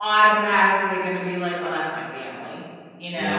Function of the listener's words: taking over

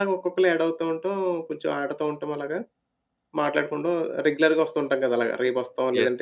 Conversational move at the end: taking over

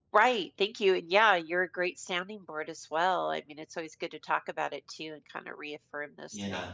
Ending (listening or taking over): listening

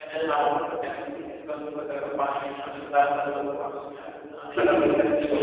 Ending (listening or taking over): taking over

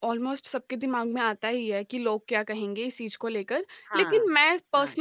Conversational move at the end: listening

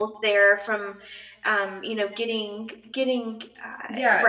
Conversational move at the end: taking over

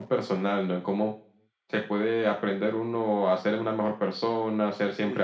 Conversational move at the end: listening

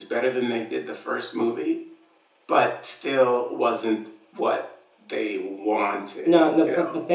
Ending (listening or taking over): taking over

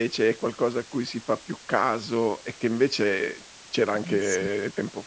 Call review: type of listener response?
listening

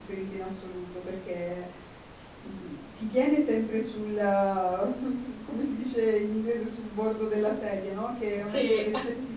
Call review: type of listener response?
listening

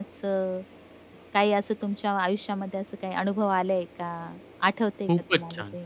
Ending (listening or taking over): taking over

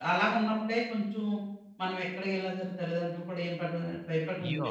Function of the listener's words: taking over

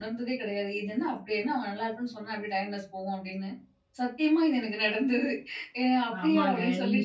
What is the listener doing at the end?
taking over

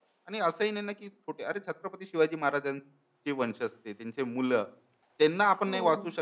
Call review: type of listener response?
listening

